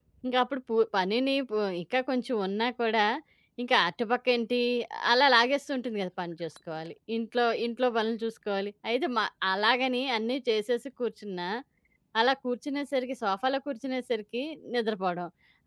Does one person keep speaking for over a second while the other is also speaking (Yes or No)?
No